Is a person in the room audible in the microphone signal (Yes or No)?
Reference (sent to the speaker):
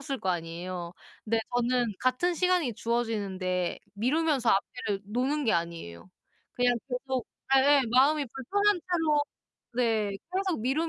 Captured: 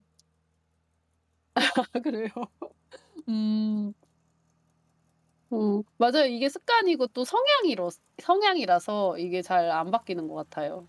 Yes